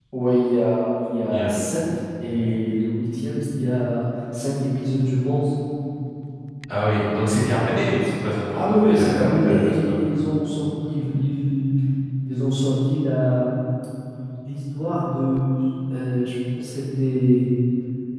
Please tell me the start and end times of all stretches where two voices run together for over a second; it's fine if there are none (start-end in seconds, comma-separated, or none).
8.5-10.0